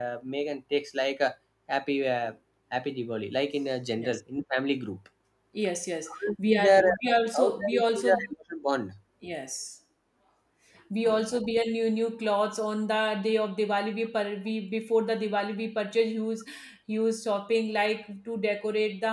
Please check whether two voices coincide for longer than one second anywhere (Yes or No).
Yes